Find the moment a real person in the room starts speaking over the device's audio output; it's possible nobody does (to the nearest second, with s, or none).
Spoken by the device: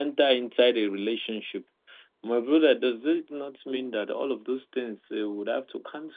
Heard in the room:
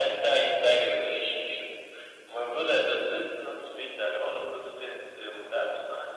none